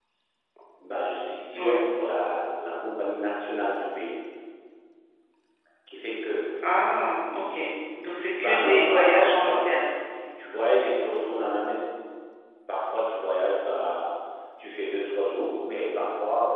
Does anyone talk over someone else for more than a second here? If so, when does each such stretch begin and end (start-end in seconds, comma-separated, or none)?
8.4-9.9